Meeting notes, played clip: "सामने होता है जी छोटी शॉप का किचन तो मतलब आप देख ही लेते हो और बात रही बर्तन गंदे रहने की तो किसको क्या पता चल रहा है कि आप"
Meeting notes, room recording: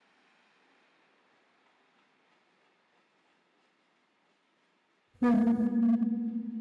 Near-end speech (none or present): present